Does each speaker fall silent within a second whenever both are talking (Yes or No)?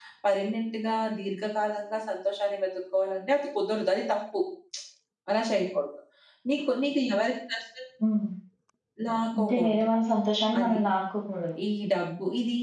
Yes